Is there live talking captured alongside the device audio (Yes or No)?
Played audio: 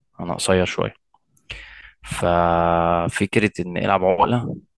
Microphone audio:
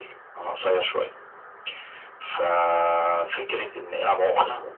No